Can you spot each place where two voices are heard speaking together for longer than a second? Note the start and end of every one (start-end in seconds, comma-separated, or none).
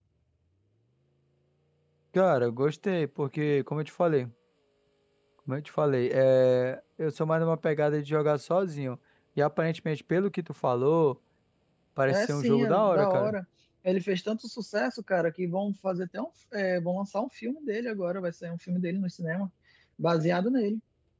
12.1-13.3